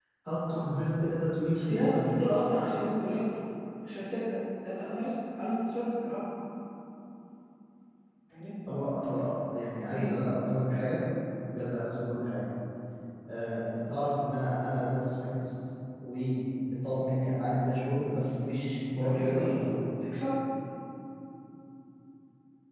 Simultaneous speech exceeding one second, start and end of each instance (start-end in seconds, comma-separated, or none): none